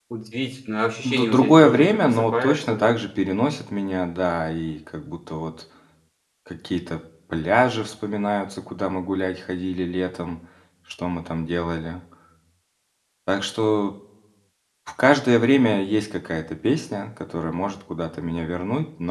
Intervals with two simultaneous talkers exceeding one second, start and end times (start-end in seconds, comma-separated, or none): 1.0-3.0